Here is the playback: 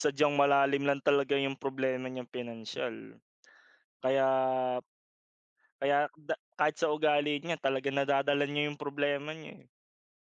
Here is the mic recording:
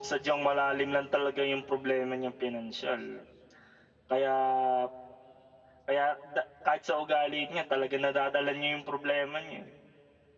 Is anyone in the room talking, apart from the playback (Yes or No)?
No